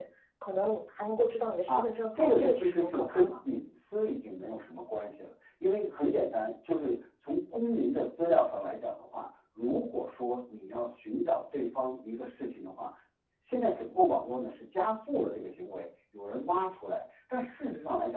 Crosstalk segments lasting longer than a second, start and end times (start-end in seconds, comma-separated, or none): 1.7-3.3